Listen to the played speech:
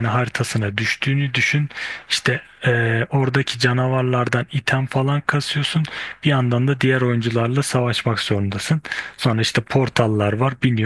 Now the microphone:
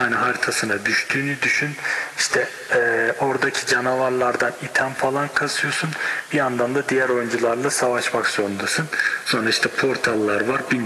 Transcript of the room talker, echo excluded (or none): none